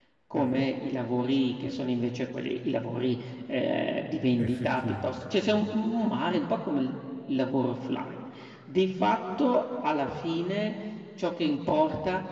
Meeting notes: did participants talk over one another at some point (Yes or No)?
Yes